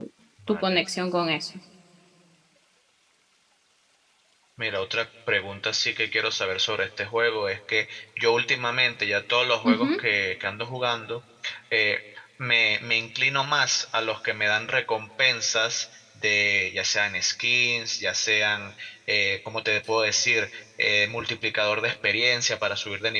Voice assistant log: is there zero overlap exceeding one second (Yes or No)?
Yes